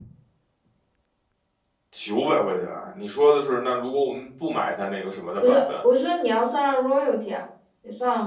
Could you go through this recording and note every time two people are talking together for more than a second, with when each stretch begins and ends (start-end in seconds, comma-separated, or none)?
none